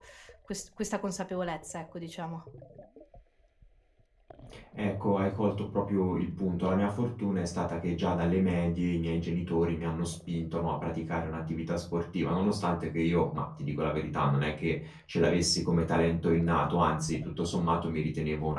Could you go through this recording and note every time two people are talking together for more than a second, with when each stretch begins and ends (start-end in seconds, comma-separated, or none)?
none